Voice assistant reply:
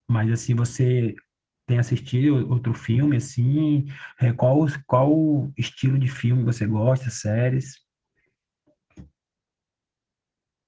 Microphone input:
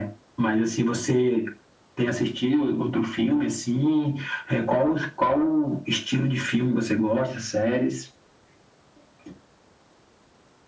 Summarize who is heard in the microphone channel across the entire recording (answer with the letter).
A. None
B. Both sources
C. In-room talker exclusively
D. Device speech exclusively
D